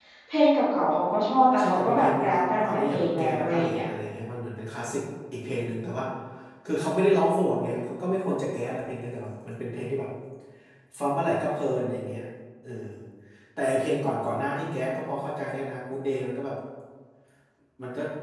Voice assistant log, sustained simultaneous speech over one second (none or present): present